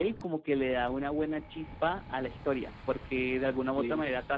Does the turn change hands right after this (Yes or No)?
No